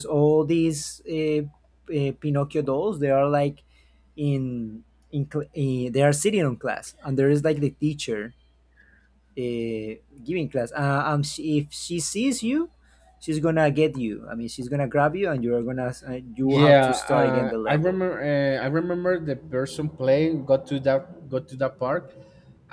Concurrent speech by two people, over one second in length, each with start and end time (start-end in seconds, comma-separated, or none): 16.4-18.0